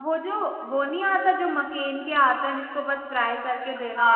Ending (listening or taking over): taking over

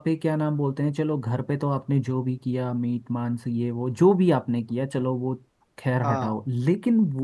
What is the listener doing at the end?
listening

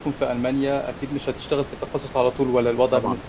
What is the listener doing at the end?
taking over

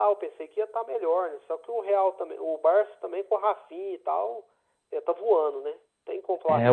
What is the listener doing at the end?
taking over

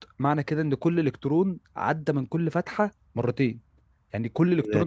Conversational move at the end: taking over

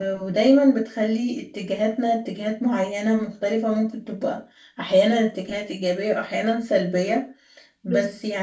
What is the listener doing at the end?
listening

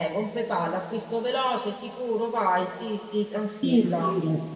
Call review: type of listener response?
taking over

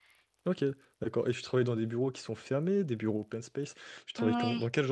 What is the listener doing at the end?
listening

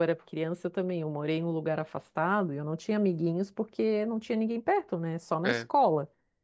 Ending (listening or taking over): listening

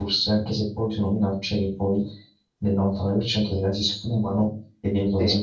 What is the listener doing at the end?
listening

